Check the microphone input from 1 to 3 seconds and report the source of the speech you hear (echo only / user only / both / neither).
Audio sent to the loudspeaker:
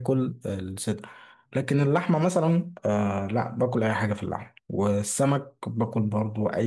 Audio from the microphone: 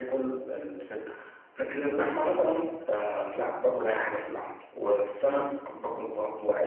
echo only